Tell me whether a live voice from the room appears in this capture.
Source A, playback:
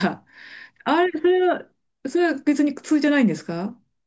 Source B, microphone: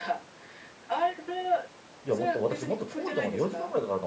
Yes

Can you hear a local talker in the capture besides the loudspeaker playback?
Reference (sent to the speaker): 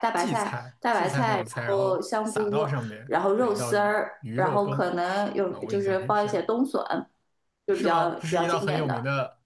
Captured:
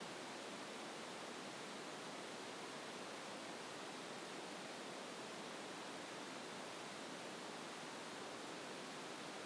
No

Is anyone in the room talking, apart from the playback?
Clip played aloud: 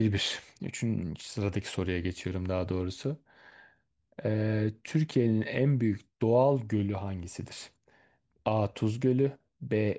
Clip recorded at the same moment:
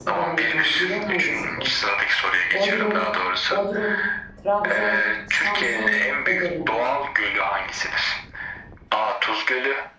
Yes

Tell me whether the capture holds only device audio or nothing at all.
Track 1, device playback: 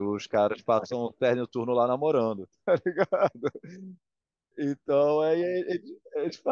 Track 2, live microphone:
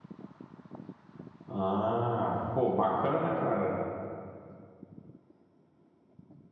No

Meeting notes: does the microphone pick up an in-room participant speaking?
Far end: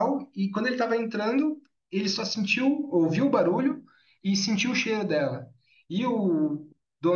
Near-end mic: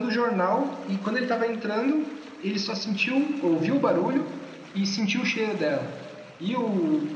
No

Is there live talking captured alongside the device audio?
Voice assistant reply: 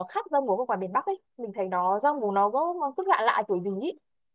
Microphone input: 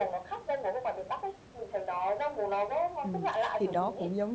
Yes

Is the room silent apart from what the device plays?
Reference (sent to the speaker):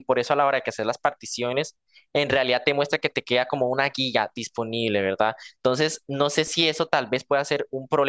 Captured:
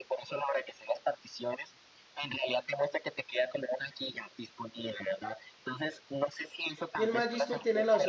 No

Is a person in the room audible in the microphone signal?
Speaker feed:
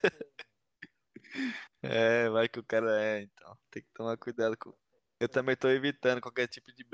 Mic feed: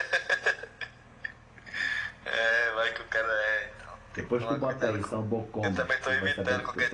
Yes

